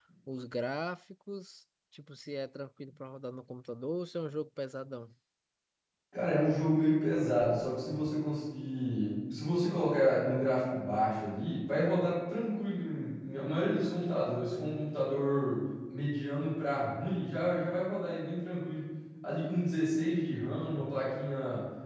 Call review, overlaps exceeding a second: none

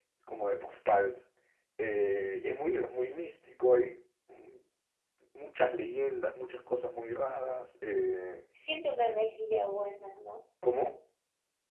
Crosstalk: none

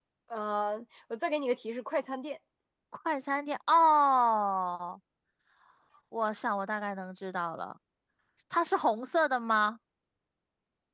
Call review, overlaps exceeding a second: none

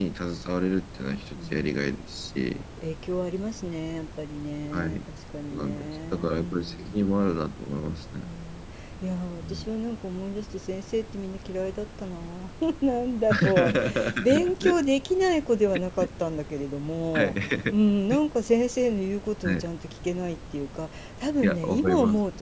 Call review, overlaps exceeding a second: present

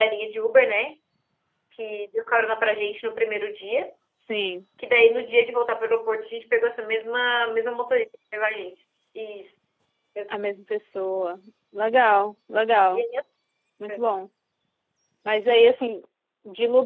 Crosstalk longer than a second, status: none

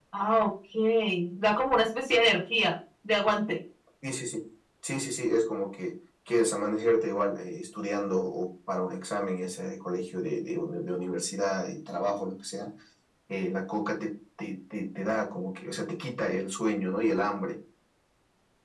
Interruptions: none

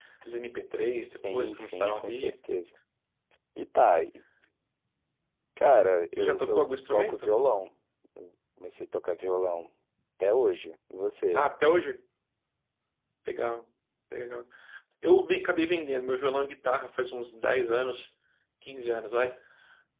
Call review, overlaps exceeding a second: present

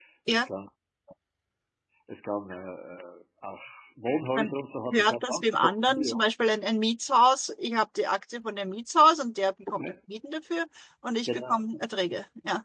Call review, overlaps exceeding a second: present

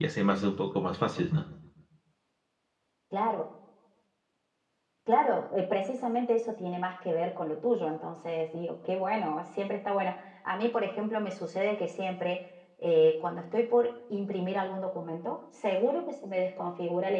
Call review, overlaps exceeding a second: none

